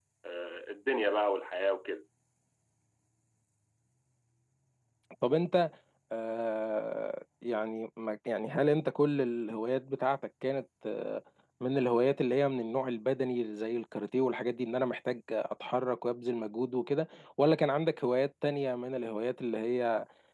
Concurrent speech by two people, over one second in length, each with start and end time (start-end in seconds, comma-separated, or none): none